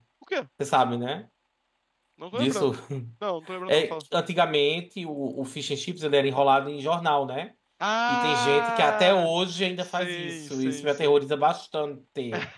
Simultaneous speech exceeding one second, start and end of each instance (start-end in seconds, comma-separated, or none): 8.1-9.3, 9.8-11.2